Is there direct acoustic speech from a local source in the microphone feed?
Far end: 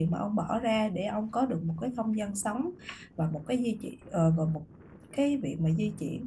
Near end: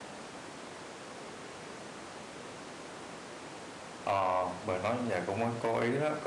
Yes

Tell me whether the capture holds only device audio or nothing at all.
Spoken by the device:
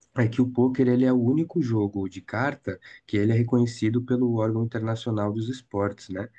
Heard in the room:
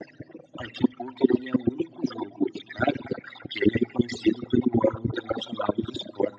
Yes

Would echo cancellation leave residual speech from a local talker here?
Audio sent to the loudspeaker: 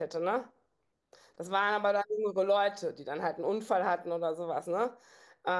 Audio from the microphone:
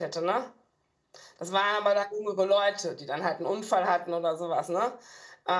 No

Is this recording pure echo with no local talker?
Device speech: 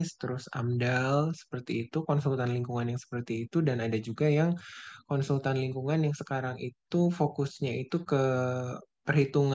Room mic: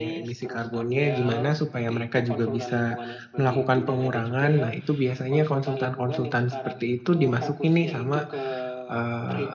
No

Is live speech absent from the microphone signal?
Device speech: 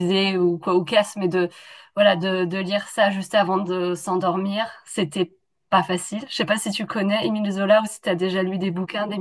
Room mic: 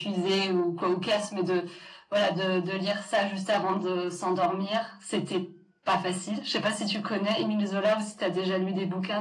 Yes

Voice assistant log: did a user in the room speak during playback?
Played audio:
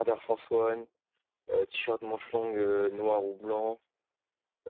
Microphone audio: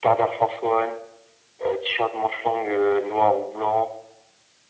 No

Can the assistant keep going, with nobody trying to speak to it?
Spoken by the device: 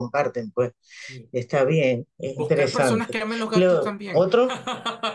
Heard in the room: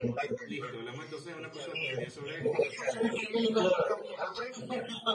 No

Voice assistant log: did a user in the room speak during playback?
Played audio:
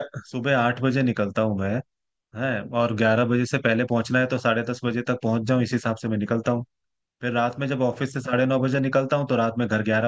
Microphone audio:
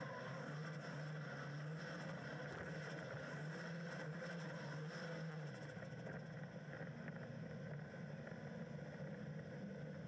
No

